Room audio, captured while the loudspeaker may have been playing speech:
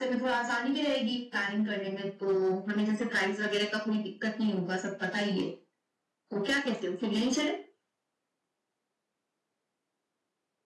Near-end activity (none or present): none